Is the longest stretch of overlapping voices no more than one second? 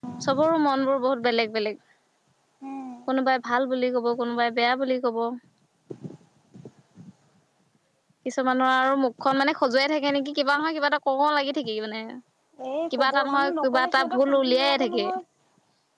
No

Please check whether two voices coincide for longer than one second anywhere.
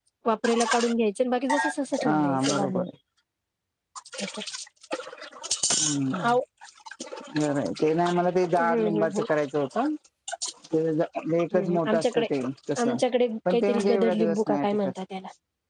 Yes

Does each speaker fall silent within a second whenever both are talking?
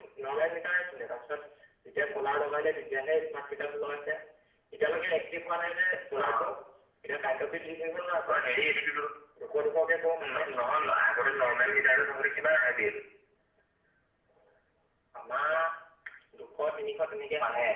Yes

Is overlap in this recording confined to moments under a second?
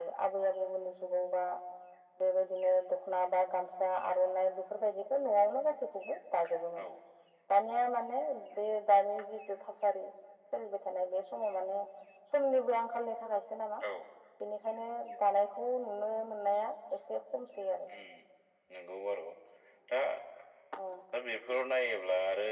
Yes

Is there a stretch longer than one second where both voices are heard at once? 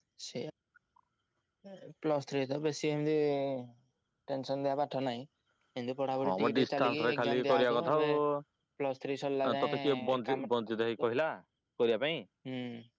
Yes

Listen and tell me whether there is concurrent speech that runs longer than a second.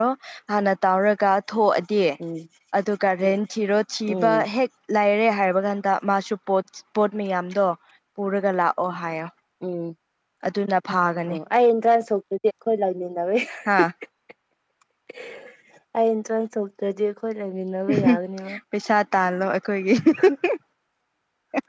No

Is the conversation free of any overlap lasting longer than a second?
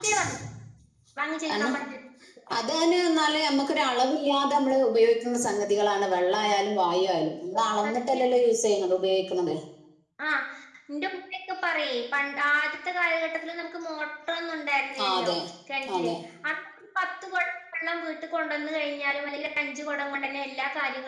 Yes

